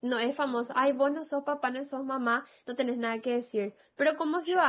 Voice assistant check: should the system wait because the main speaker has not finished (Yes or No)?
Yes